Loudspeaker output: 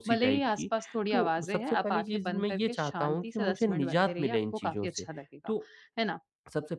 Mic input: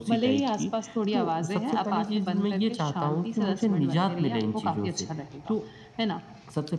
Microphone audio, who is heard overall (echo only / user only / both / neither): echo only